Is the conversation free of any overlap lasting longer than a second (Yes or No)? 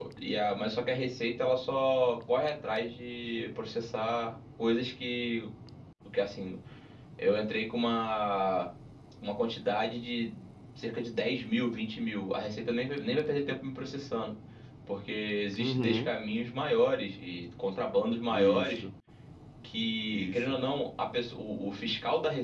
Yes